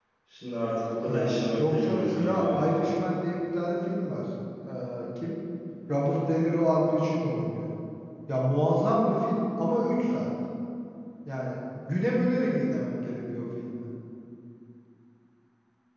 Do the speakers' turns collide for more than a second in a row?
Yes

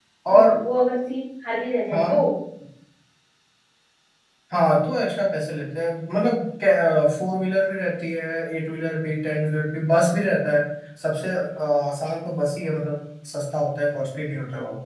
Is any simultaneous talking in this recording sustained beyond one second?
No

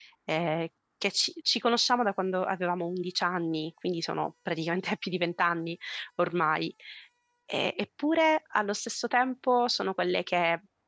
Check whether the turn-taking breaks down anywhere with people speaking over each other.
No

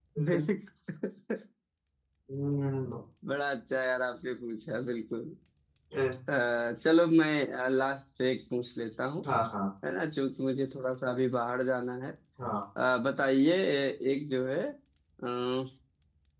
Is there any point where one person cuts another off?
No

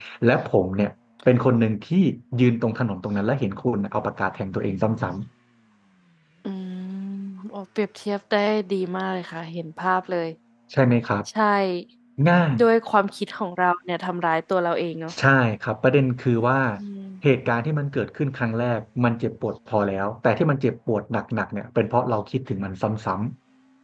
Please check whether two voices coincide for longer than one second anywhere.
No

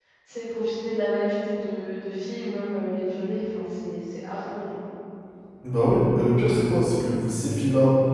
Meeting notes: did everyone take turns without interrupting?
Yes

